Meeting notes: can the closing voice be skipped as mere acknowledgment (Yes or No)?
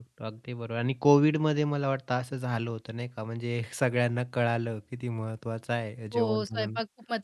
No